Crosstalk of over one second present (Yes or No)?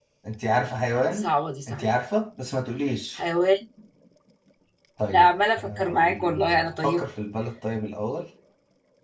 Yes